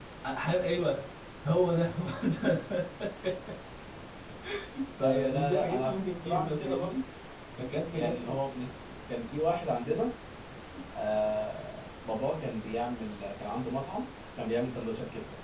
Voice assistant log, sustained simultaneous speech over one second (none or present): present